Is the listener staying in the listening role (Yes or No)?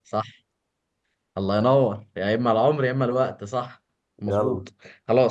Yes